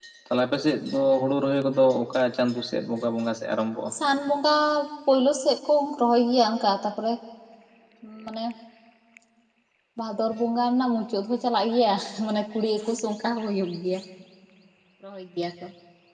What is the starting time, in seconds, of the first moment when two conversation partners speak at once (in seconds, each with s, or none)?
none